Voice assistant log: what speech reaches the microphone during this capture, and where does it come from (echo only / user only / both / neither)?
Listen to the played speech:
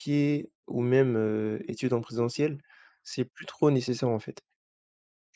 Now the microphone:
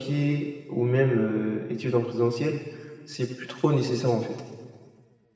echo only